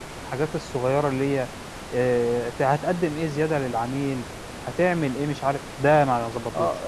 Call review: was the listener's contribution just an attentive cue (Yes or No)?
No